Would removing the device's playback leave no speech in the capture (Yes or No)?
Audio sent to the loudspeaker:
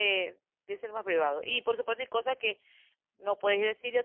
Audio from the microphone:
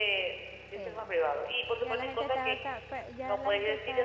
No